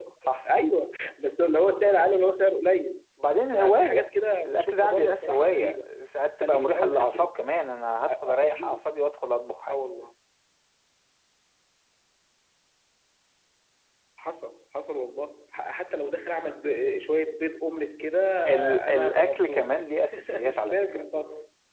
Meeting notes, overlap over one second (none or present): present